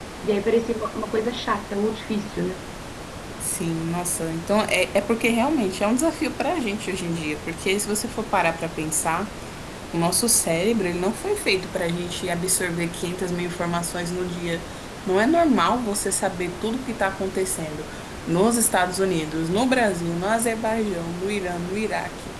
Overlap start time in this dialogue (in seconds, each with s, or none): none